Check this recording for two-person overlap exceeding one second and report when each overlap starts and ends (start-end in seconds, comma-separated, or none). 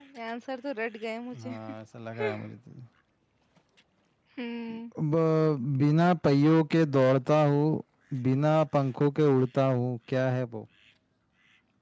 none